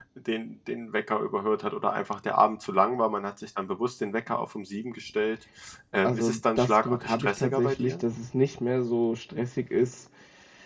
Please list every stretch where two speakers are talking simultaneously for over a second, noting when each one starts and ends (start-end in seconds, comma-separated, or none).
6.0-8.0